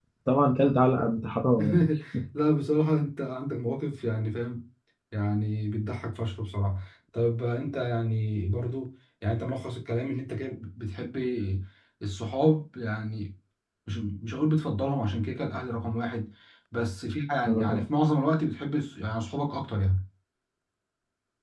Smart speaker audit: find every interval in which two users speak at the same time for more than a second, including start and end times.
none

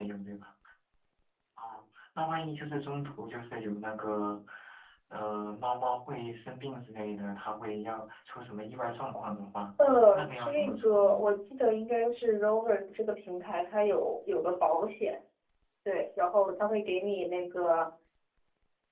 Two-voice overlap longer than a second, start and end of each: 10.1-11.3

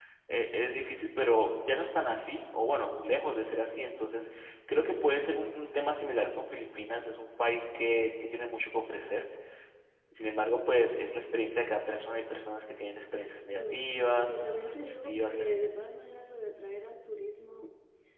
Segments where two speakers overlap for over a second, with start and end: 13.5-15.6

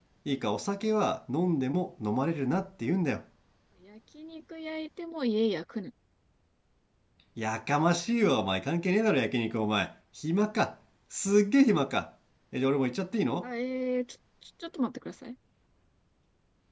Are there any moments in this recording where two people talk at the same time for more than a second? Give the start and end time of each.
none

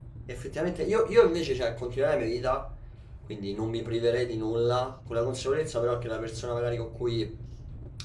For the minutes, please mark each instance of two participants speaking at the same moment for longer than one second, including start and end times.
none

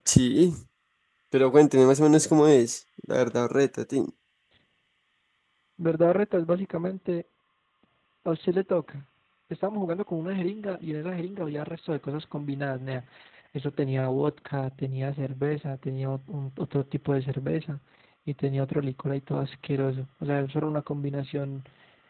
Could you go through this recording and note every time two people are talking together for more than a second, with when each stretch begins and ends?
none

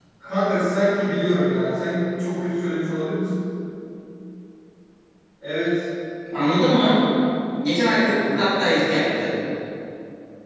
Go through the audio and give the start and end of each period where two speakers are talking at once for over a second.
7.9-9.2

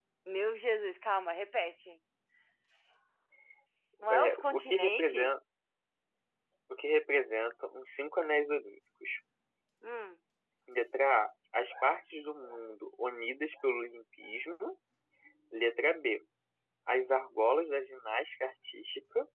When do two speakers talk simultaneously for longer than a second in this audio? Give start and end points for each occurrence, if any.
4.1-5.3

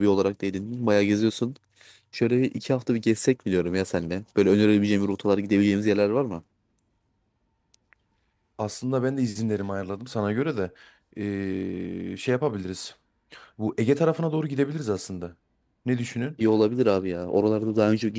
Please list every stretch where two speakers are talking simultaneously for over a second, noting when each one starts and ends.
none

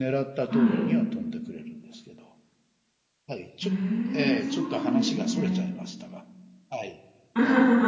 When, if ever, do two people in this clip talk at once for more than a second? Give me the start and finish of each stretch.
4.3-5.6

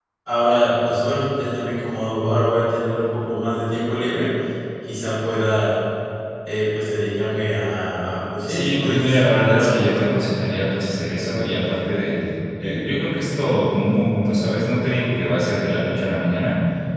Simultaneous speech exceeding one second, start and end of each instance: 8.5-10.1

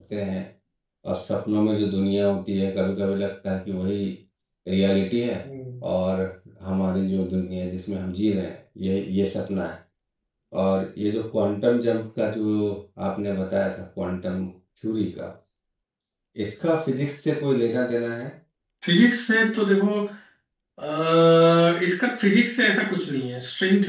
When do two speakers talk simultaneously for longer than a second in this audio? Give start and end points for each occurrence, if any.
none

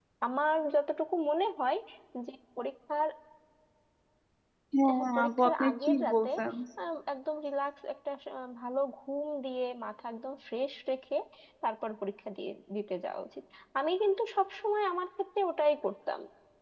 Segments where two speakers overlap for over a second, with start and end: 5.0-6.3

